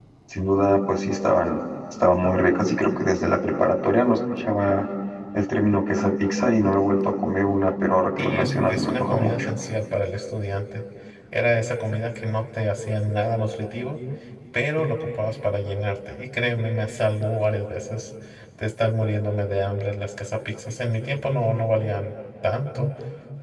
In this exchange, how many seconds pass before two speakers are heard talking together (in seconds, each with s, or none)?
8.2 s